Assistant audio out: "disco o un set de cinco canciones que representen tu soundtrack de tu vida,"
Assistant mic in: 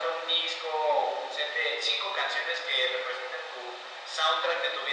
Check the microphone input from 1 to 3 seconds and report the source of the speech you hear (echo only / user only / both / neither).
echo only